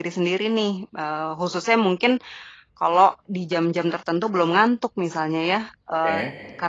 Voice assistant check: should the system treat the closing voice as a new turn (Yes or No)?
No